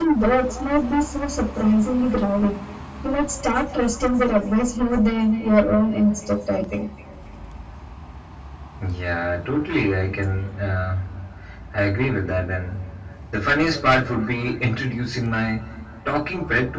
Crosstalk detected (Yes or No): No